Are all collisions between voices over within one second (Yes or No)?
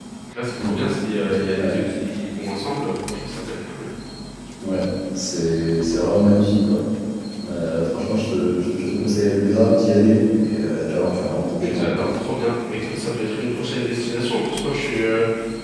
Yes